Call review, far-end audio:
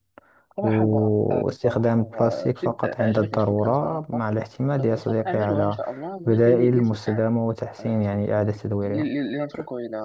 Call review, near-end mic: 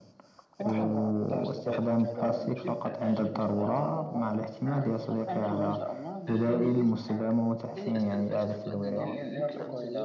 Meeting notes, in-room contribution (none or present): present